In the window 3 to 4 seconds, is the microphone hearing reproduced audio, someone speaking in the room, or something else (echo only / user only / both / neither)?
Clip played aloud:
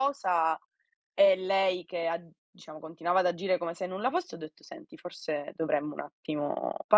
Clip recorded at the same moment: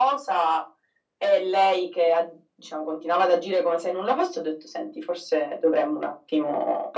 echo only